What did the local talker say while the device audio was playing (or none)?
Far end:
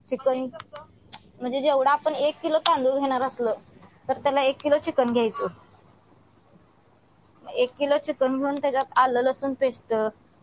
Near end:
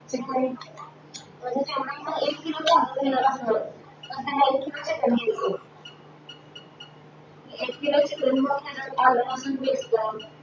none